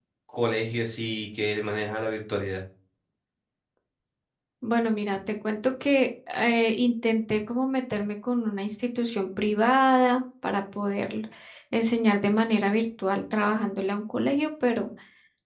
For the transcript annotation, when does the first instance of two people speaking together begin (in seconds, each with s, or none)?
none